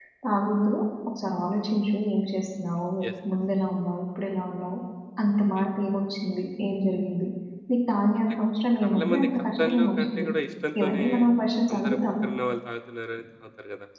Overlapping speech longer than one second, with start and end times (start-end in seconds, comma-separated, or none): 8.8-10.3